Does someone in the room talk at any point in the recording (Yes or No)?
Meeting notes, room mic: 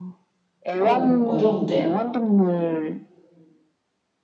Yes